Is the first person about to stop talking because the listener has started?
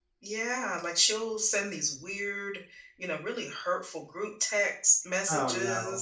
No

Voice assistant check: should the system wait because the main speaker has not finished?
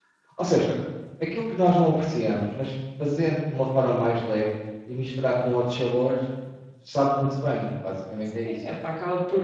No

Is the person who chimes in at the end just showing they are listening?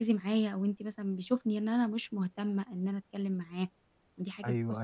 No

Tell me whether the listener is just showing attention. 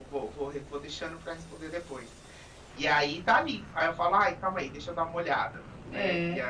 No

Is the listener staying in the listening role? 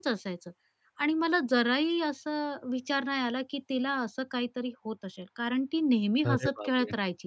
Yes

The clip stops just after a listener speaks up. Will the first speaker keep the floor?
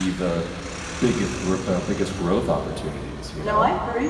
No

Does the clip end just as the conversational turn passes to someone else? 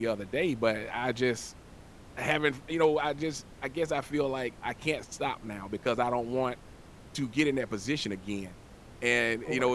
No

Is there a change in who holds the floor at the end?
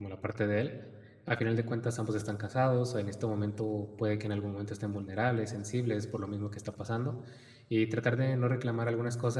No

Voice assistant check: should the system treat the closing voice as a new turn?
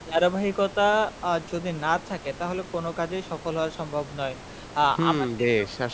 Yes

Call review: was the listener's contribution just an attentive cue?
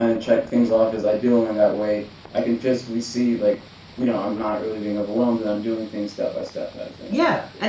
No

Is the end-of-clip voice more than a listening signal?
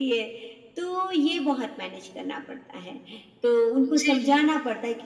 No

